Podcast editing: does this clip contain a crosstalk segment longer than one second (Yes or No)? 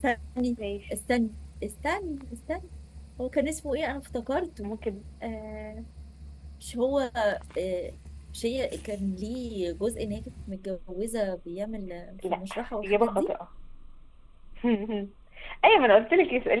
No